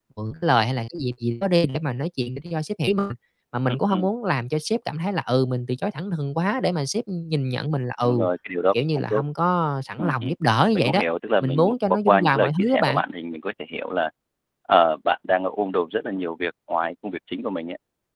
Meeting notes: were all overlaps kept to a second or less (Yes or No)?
No